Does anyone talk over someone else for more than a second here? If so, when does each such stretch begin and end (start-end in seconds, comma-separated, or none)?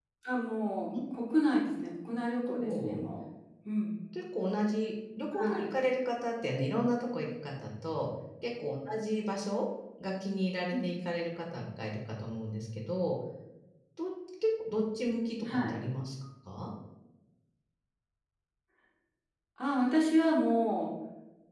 1.6-3.0